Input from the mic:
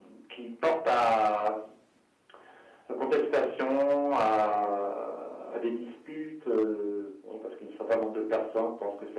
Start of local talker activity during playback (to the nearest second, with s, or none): none